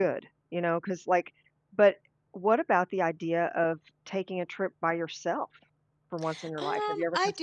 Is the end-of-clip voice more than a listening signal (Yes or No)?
Yes